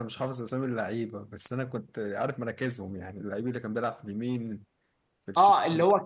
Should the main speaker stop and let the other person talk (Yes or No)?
Yes